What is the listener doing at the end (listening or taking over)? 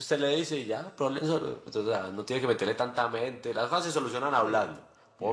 listening